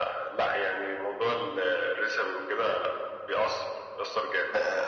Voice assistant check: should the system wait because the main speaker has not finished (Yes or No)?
No